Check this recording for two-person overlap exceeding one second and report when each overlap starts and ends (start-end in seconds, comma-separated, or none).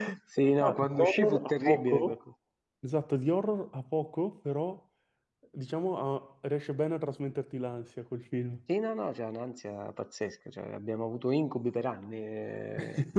0.6-2.1